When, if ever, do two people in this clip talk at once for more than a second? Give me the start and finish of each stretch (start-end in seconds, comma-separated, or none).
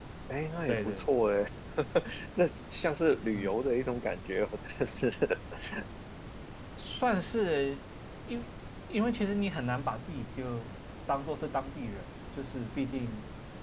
none